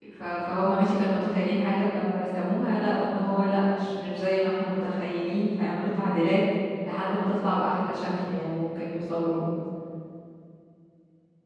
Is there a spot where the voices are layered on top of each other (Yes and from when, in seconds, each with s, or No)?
No